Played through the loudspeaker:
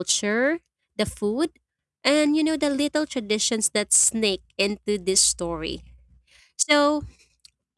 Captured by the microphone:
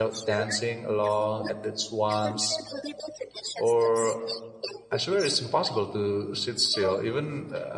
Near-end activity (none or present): present